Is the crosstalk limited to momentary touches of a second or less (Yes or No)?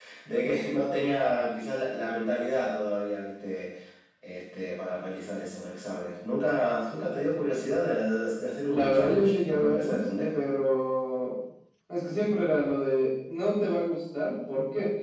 No